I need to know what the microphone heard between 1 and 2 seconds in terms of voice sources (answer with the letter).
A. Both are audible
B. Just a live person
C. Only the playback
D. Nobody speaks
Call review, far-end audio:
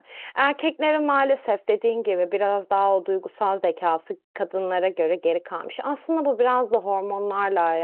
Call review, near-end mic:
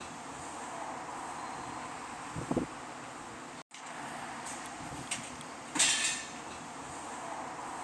D